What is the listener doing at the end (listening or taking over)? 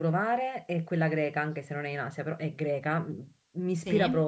listening